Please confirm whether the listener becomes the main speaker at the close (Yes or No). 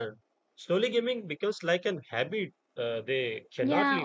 Yes